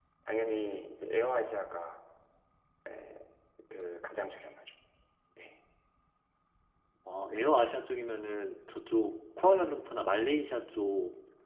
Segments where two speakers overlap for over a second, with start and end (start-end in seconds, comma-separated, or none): none